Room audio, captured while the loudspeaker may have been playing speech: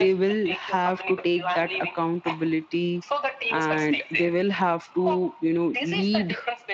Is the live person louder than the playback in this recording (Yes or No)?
Yes